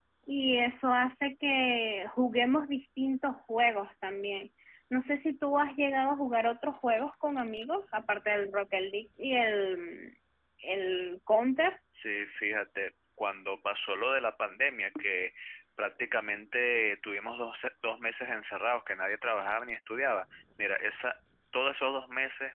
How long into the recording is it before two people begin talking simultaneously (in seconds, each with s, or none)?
none